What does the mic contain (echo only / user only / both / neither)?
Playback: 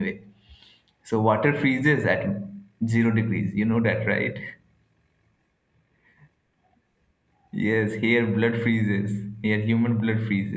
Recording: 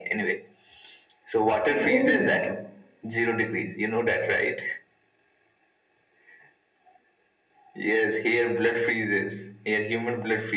both